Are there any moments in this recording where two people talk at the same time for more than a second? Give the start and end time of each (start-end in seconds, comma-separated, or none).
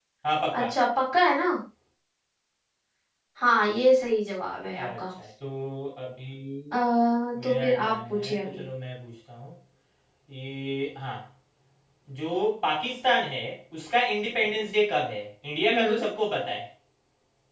7.4-8.6